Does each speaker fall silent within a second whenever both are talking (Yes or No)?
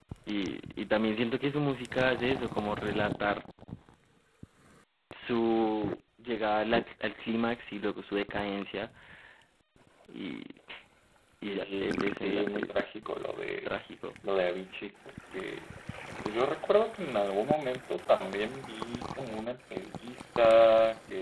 No